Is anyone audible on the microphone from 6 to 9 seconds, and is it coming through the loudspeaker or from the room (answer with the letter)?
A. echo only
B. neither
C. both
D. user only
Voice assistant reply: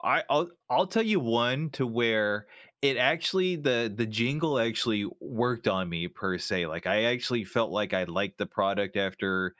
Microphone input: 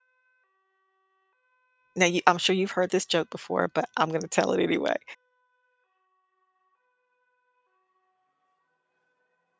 B